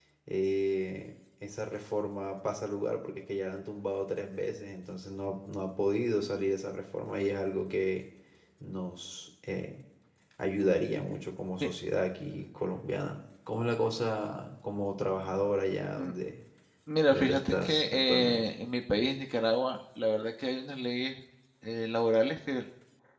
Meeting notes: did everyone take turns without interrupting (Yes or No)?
No